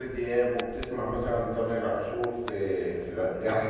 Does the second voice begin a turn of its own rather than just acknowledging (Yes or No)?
Yes